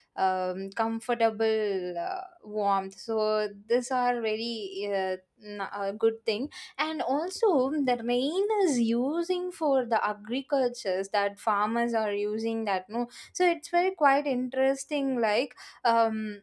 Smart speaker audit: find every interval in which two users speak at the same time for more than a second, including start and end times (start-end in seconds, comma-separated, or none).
none